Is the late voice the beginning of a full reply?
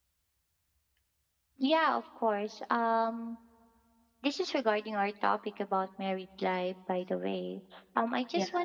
No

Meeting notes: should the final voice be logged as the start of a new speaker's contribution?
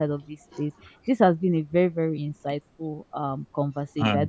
No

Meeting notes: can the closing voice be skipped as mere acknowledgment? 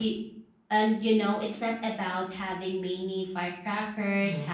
Yes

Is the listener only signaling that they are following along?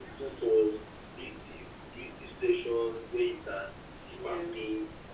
Yes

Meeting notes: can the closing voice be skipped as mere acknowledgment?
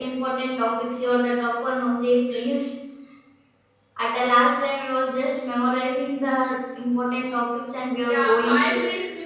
No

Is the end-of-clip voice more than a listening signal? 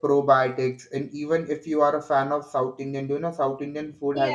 Yes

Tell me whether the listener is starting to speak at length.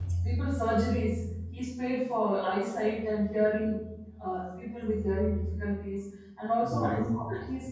No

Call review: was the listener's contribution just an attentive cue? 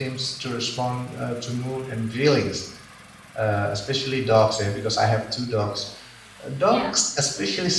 Yes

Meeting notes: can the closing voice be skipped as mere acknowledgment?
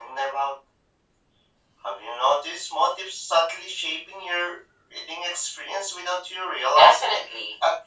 No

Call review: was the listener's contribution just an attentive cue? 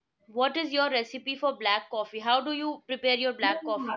No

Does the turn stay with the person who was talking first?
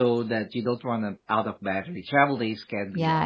No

